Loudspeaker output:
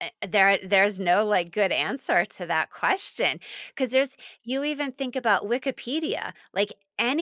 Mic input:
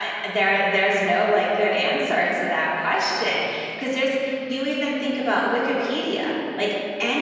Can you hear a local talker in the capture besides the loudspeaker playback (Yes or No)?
No